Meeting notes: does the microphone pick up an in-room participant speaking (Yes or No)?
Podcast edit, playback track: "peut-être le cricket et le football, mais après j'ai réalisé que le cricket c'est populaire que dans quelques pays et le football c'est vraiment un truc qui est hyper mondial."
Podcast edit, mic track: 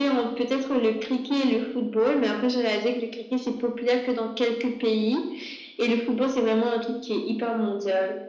No